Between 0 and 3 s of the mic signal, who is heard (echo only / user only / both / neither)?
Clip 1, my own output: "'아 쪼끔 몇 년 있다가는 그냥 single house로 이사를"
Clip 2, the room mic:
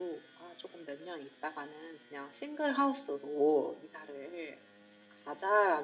echo only